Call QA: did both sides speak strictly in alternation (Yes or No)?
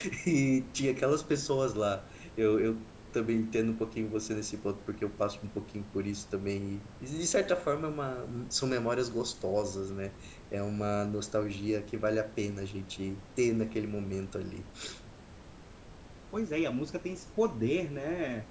Yes